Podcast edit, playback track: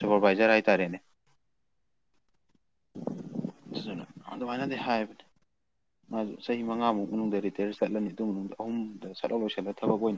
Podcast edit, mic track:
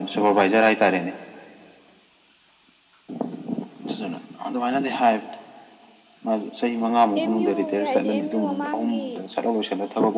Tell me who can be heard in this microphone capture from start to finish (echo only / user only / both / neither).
both